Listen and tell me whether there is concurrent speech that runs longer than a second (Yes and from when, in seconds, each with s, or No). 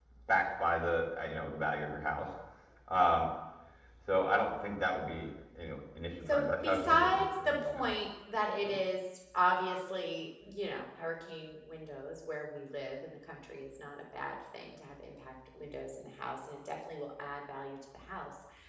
Yes, from 6.3 s